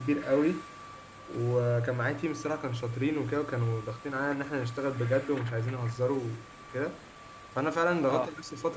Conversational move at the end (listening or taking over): listening